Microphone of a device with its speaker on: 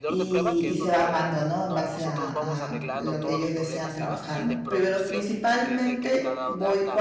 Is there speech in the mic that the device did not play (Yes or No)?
Yes